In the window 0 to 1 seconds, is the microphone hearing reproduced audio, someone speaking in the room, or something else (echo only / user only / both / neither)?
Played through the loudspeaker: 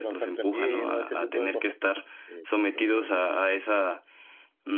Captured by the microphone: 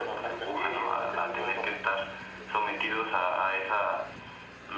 echo only